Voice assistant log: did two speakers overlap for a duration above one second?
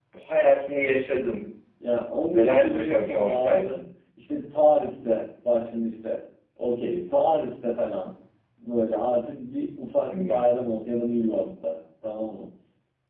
Yes, from 2.3 s

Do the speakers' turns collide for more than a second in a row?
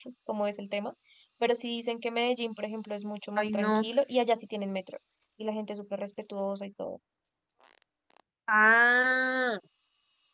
No

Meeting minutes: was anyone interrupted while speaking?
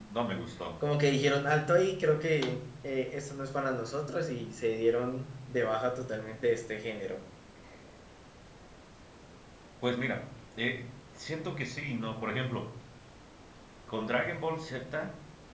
No

